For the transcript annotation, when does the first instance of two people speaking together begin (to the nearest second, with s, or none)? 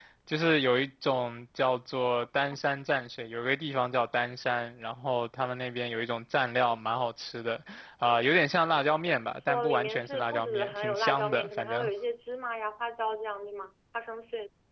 9 s